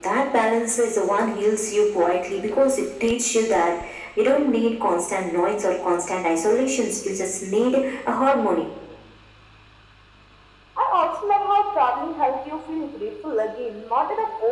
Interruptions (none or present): none